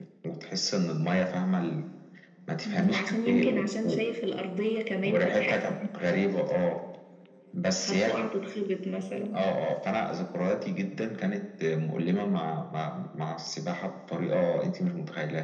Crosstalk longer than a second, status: present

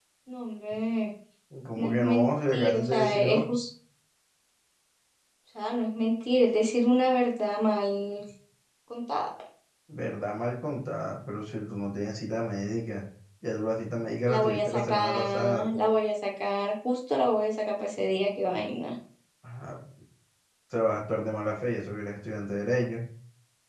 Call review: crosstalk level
present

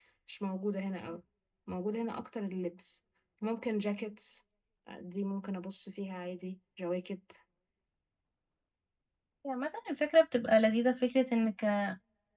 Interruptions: none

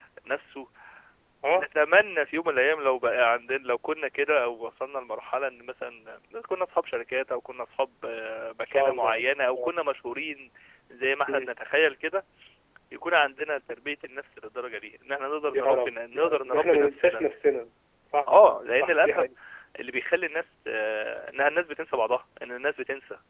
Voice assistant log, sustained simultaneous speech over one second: present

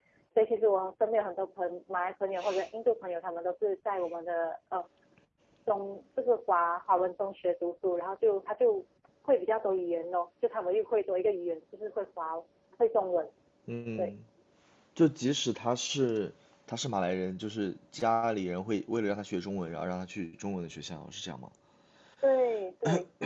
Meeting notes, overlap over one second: none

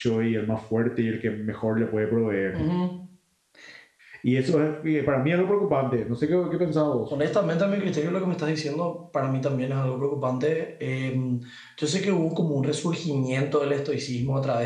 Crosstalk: none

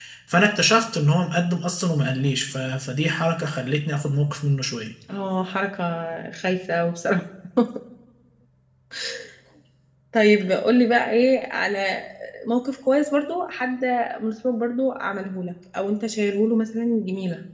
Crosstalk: none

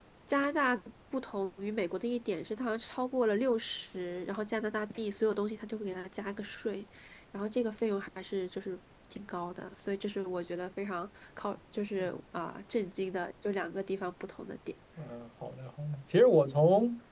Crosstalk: none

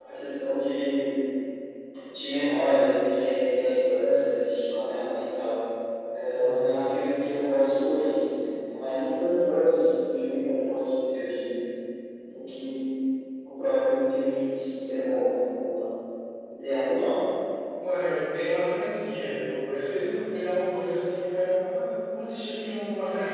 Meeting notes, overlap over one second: none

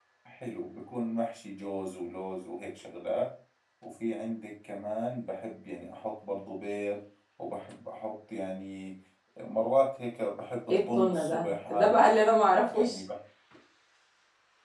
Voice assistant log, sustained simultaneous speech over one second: present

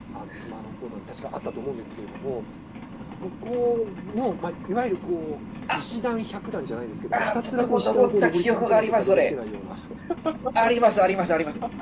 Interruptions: present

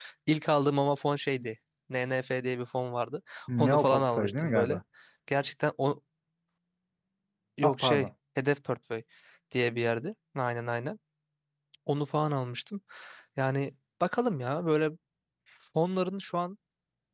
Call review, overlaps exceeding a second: present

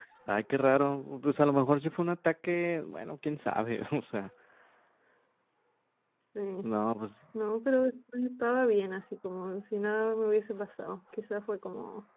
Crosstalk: none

